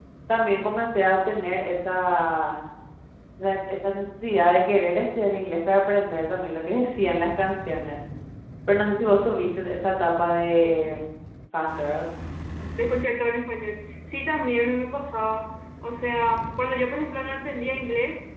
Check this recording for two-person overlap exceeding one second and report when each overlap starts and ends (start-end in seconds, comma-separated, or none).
none